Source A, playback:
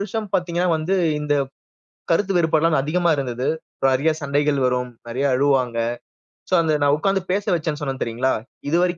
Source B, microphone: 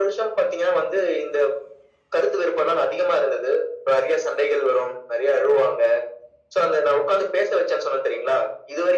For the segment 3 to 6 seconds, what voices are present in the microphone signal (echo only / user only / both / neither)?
echo only